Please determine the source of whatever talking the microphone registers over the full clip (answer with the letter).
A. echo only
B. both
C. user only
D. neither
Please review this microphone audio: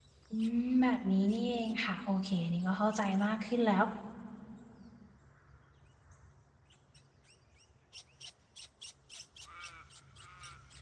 C